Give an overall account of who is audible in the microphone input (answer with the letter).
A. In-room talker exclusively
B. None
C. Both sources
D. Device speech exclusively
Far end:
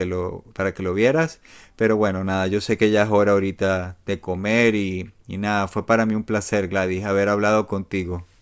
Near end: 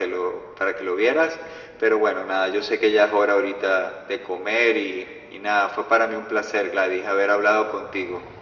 D